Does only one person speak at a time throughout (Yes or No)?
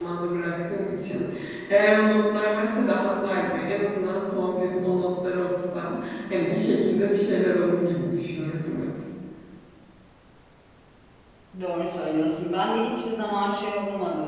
Yes